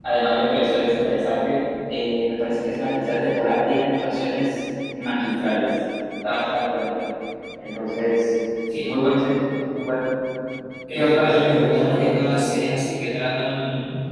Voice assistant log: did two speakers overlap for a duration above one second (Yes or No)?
Yes